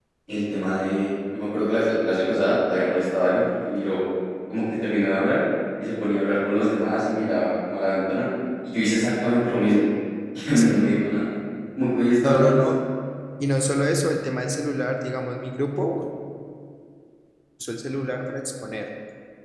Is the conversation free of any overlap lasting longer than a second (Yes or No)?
Yes